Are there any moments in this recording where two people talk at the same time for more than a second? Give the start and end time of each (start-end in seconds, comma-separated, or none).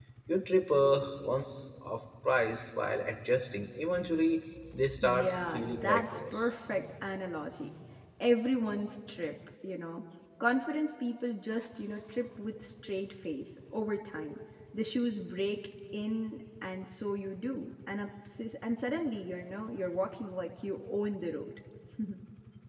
5.0-6.5